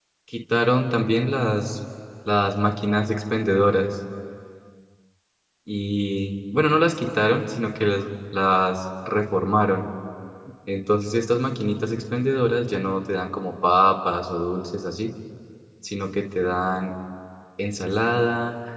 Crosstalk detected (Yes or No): No